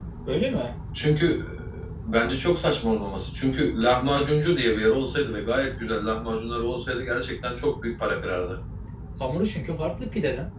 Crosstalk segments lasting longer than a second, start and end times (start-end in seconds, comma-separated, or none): none